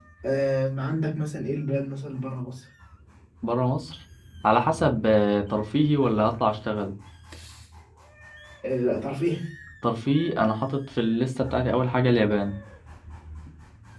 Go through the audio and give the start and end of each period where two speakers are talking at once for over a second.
none

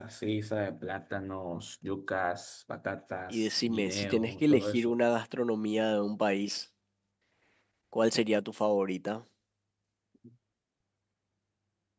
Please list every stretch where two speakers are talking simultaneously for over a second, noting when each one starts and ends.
3.3-4.9

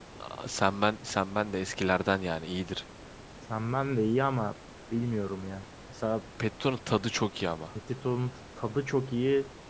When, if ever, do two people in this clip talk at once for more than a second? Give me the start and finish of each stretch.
none

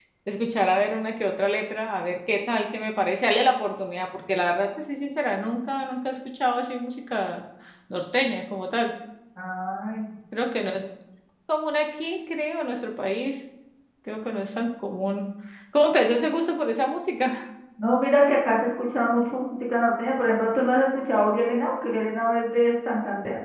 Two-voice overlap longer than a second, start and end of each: none

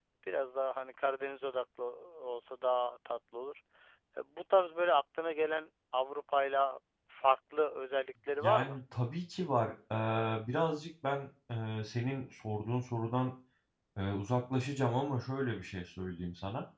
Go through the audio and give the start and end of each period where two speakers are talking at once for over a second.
none

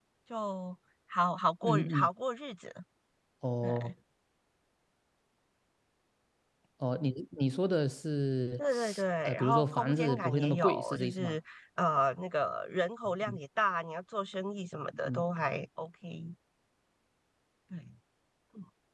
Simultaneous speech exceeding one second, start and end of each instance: 9.2-11.4

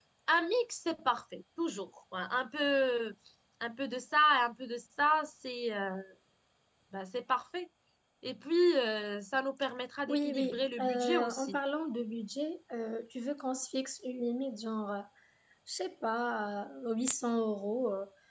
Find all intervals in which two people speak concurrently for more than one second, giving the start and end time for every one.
10.1-11.6

